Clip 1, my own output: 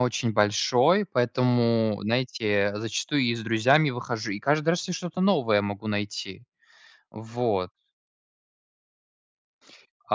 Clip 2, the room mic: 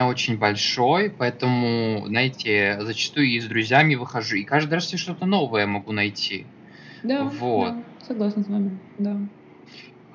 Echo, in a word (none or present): present